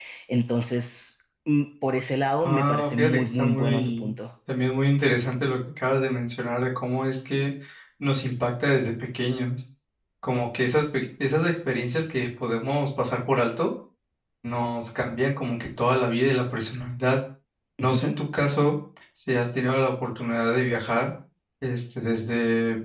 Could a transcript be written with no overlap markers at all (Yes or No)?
No